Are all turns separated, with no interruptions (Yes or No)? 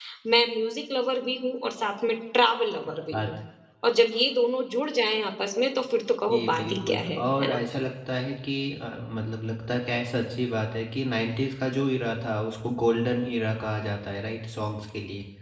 No